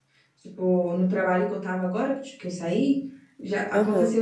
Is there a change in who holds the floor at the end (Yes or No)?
No